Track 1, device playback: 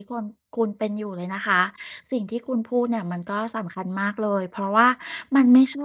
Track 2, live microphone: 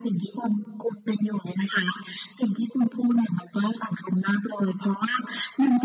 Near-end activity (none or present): none